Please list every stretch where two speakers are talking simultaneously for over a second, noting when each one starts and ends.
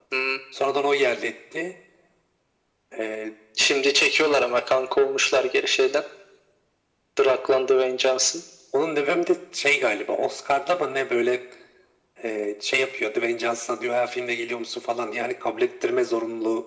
none

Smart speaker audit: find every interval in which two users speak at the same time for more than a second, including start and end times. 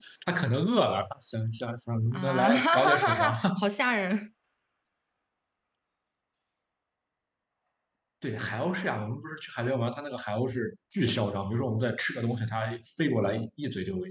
2.1-3.4

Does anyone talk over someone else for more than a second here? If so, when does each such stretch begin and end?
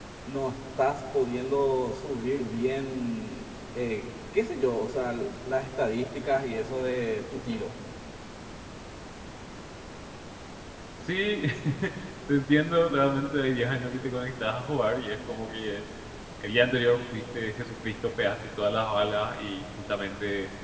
none

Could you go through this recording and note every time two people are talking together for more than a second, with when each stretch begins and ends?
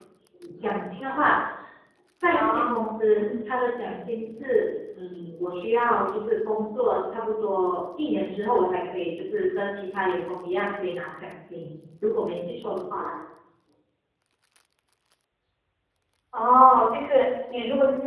none

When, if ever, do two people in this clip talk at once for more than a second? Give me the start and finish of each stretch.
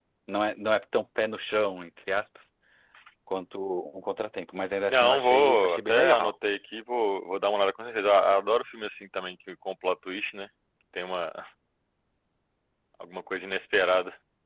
4.9-6.3

